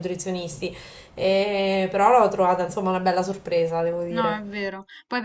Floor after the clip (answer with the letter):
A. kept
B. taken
B